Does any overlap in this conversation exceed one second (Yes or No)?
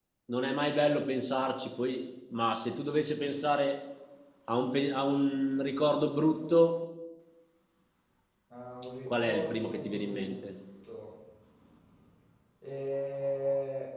Yes